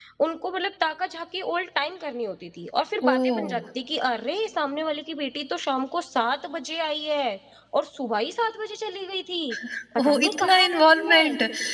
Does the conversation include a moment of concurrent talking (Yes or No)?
Yes